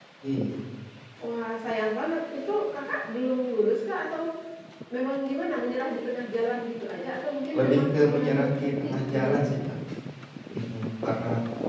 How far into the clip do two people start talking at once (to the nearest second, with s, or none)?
8 s